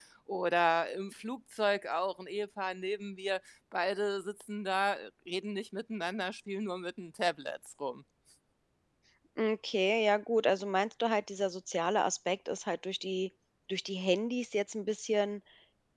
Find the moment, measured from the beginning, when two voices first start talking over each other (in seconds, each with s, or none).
none